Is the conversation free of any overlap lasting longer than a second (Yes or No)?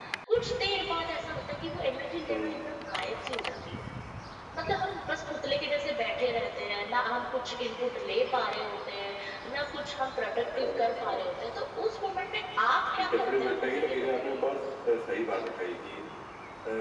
No